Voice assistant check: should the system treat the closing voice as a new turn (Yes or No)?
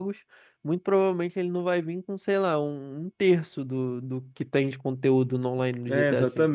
Yes